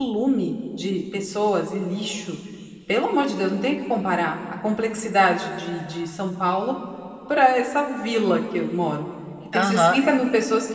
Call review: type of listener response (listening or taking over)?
listening